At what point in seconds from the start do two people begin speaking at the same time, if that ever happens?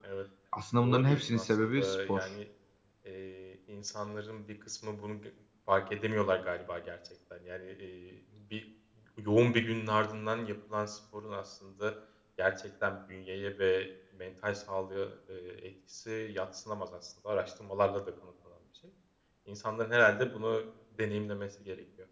0.8 s

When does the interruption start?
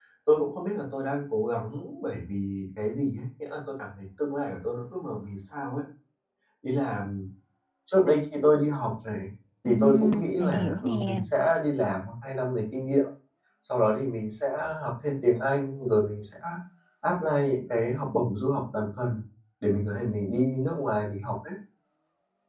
9.7 s

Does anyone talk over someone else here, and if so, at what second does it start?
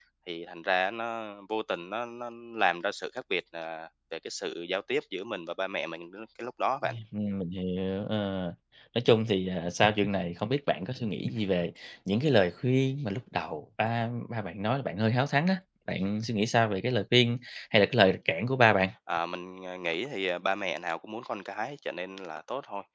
none

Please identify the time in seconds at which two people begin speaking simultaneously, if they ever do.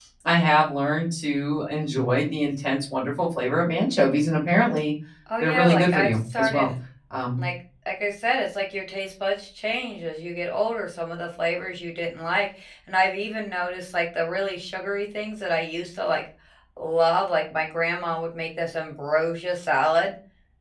5.4 s

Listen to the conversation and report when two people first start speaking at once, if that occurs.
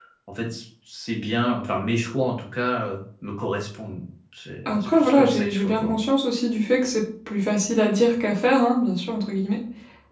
4.7 s

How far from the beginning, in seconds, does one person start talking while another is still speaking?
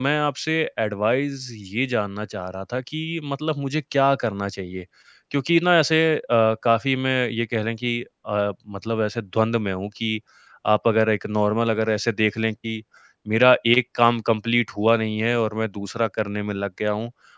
none

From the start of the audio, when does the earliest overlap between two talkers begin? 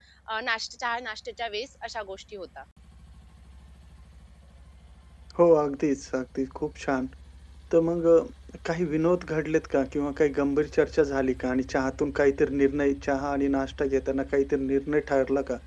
none

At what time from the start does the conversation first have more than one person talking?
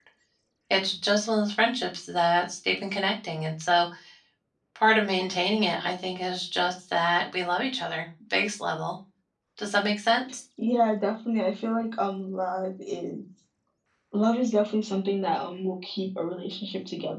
none

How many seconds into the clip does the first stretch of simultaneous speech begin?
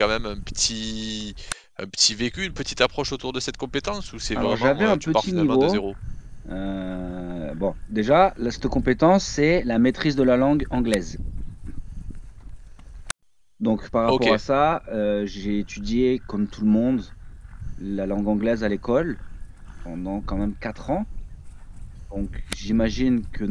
4.3 s

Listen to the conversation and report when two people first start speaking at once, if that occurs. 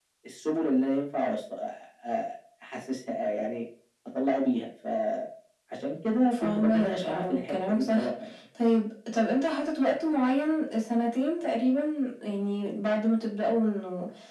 6.3 s

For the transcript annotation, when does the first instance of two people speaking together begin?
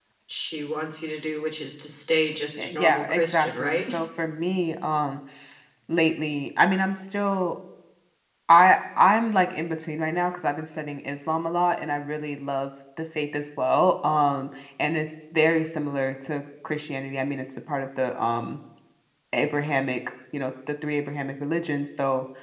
2.6 s

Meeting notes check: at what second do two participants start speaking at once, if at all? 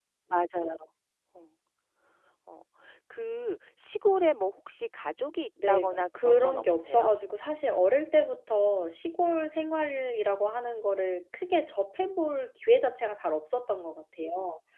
5.6 s

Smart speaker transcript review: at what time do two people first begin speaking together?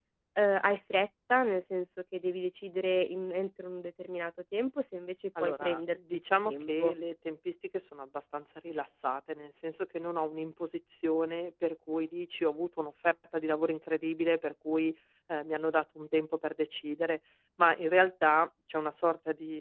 5.3 s

